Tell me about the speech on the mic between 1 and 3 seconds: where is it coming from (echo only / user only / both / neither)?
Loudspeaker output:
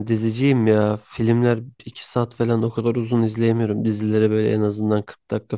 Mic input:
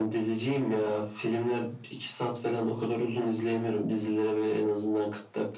echo only